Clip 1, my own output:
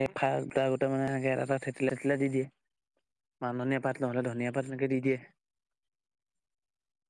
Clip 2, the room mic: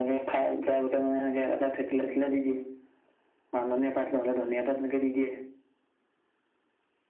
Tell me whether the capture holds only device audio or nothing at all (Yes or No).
Yes